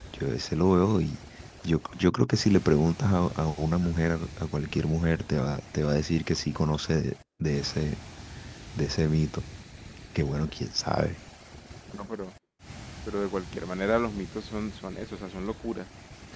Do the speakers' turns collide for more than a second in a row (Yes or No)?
No